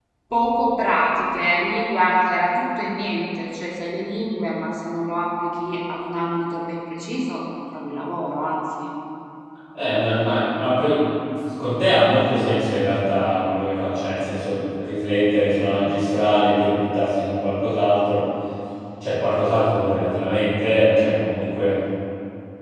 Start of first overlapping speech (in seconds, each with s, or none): none